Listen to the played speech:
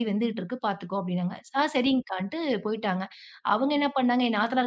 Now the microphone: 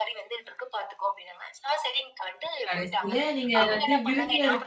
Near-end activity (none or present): present